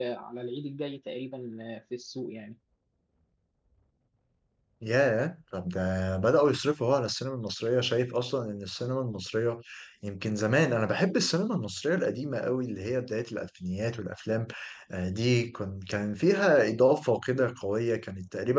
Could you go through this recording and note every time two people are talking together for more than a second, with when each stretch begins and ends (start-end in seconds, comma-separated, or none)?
none